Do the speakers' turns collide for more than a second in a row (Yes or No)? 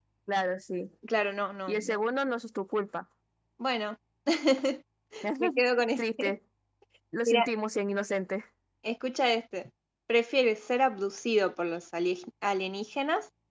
No